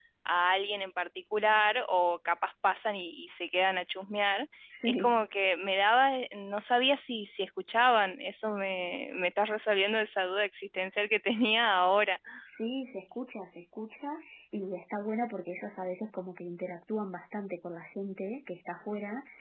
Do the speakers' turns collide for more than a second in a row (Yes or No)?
No